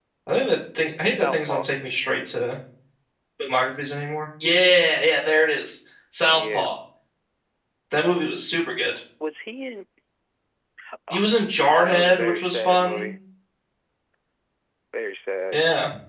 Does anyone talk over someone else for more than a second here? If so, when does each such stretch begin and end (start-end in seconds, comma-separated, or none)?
11.7-13.1